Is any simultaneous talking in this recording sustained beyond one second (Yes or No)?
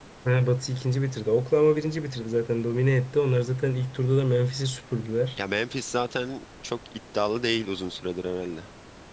No